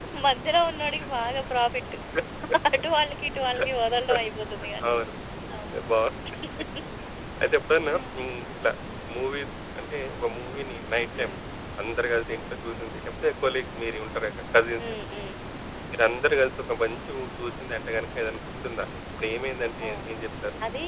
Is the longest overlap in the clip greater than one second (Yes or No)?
No